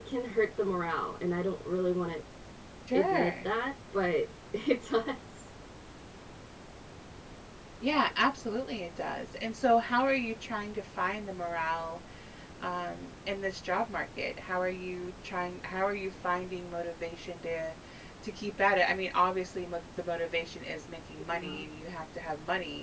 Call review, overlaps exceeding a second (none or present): none